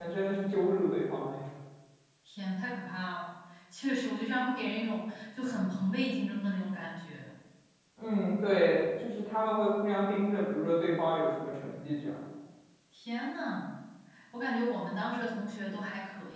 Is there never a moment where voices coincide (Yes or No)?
Yes